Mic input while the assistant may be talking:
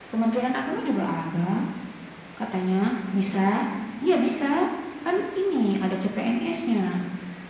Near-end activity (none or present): none